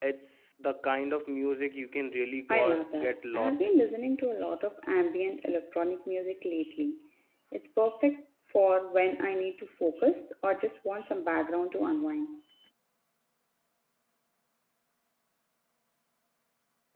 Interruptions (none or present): present